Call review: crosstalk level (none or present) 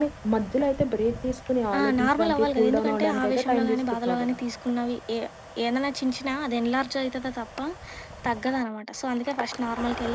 present